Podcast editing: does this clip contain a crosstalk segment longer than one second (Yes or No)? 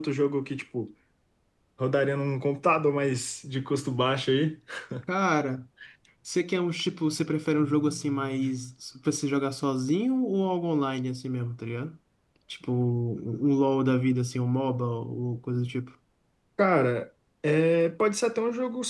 No